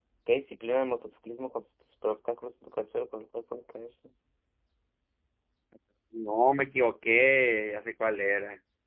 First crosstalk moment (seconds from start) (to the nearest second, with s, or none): none